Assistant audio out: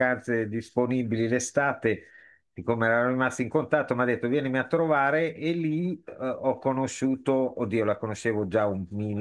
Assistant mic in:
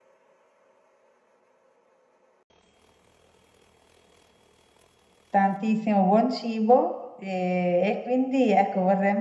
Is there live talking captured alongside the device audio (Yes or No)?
Yes